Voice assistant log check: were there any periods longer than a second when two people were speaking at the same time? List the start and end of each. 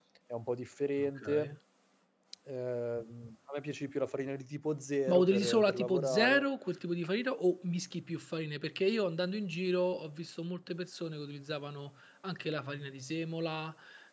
5.1-6.5

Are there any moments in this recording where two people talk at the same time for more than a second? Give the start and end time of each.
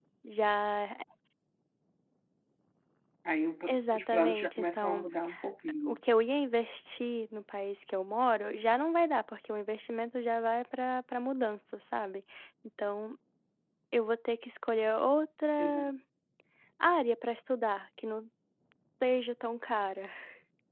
3.7-5.1

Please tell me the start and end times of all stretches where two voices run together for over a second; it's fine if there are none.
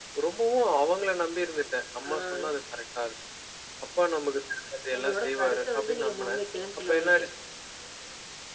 5.0-6.4

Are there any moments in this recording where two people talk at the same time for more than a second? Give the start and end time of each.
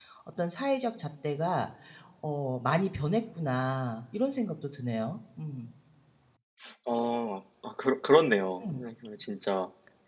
none

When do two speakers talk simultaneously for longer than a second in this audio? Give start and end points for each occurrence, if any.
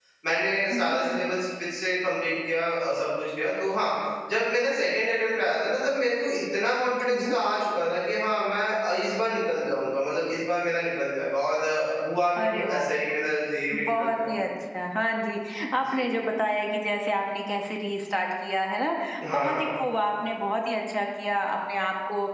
none

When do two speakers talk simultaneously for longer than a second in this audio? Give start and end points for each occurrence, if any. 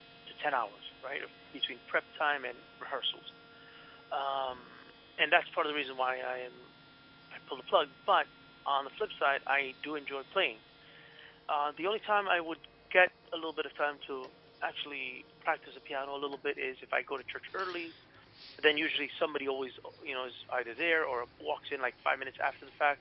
none

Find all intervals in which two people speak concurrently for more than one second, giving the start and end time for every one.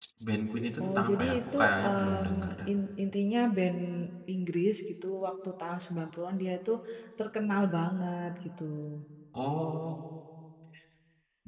0.8-2.7

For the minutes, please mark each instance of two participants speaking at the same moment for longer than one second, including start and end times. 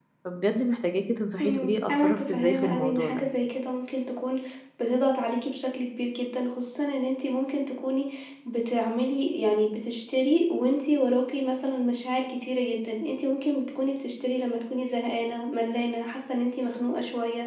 1.4-3.2

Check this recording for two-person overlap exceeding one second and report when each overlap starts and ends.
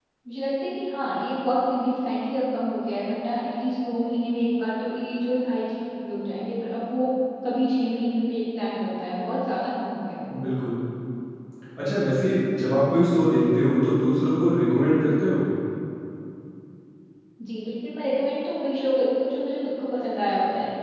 none

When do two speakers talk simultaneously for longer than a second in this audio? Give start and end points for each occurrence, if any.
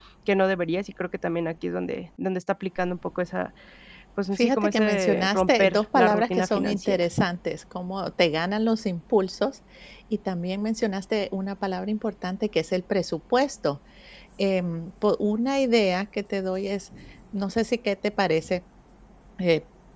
4.3-7.1

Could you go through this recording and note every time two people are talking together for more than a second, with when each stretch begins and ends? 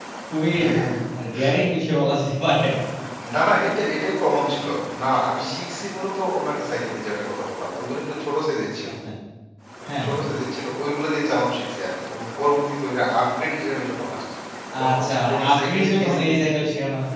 14.8-16.4

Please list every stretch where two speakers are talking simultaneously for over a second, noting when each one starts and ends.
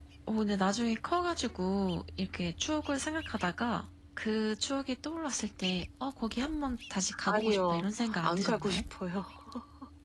7.3-8.8

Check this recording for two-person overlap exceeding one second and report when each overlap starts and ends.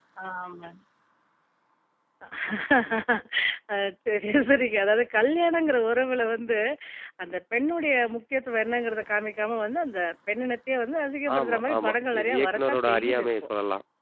11.4-13.3

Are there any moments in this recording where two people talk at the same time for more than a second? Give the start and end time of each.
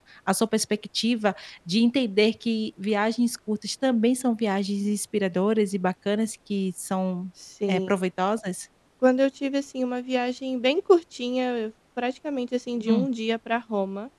none

